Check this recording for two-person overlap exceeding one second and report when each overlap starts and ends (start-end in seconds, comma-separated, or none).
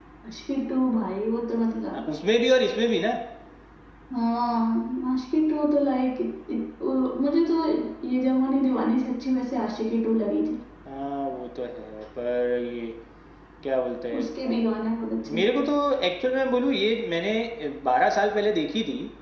none